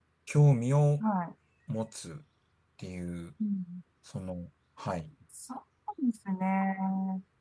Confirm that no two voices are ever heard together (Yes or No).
Yes